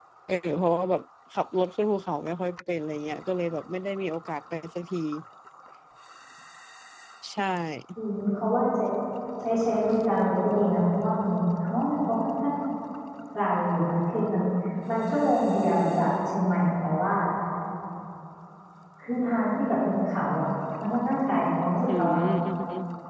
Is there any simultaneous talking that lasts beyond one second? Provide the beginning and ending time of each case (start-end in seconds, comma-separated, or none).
none